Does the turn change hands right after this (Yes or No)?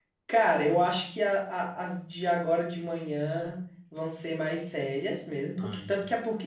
No